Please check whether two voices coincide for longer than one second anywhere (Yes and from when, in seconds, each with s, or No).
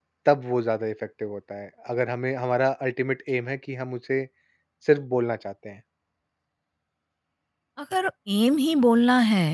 No